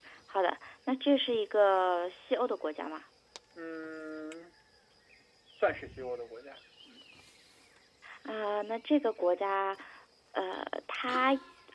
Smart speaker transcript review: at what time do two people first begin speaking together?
none

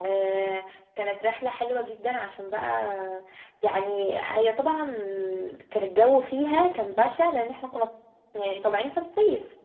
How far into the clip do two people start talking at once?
none

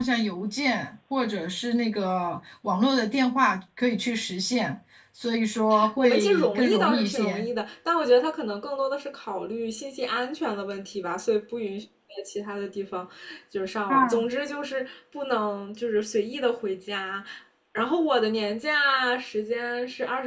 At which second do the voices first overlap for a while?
6.0 s

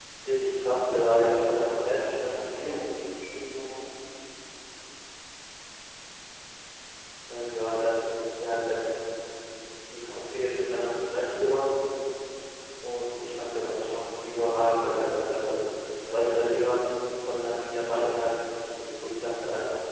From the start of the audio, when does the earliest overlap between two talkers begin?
0.8 s

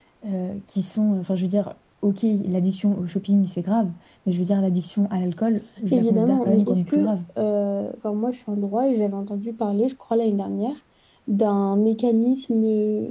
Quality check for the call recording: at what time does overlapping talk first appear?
5.9 s

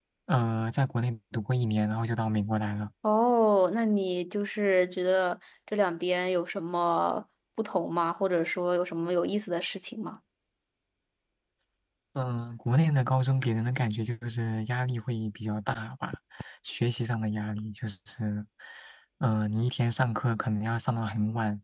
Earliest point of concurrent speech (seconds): none

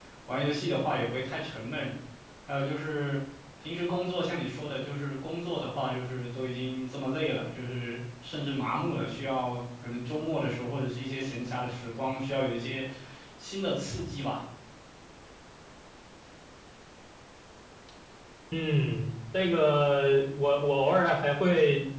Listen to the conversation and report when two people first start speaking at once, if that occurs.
none

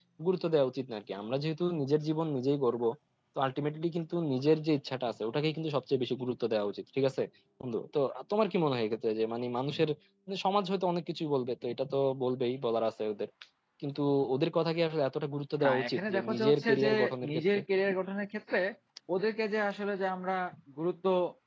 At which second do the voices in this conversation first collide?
15.6 s

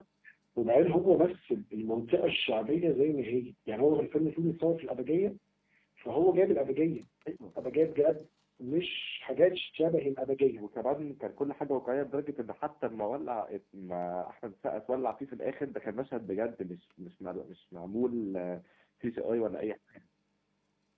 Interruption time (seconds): none

